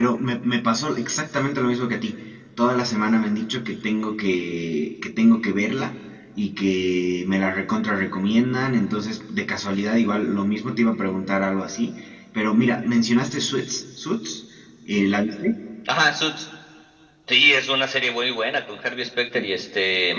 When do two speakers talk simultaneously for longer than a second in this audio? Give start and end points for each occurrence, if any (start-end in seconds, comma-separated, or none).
none